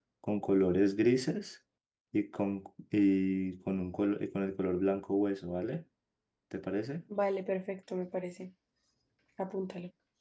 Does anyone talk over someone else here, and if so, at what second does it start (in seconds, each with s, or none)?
none